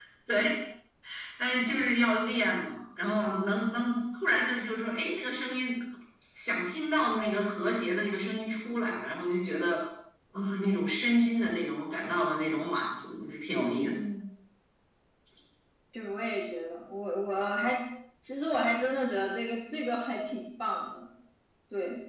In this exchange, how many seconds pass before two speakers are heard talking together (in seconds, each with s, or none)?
none